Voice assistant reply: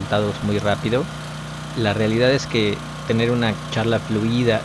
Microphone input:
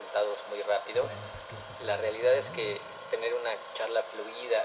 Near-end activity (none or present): present